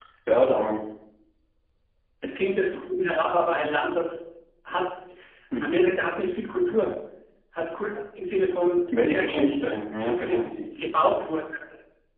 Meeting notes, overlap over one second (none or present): present